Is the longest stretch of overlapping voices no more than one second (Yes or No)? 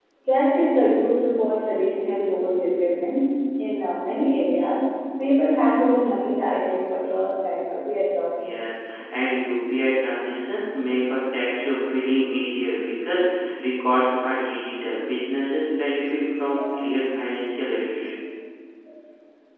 Yes